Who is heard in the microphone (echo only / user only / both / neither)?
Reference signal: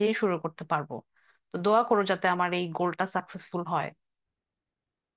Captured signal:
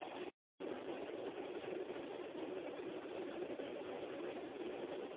neither